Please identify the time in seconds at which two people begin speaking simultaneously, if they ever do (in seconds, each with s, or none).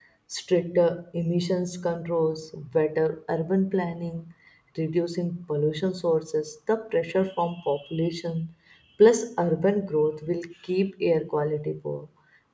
none